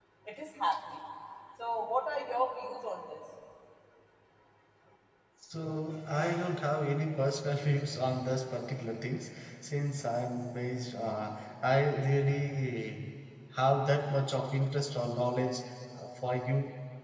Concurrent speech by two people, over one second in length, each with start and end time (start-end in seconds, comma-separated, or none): none